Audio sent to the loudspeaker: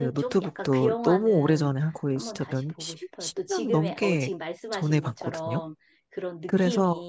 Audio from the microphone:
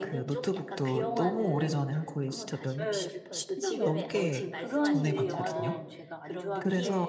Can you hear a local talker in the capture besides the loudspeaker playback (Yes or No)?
Yes